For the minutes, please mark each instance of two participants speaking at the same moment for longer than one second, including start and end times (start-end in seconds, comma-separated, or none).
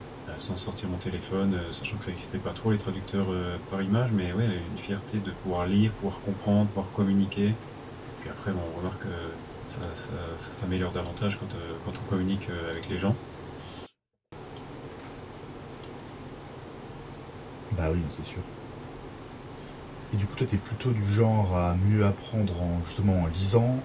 none